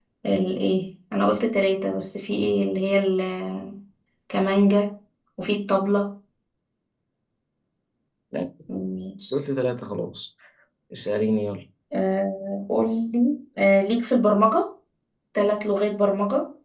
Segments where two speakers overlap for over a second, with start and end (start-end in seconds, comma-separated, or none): none